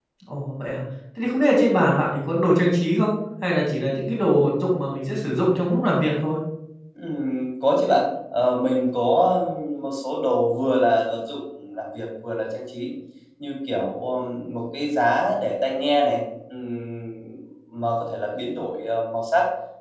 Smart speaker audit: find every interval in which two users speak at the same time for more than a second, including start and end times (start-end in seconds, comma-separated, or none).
none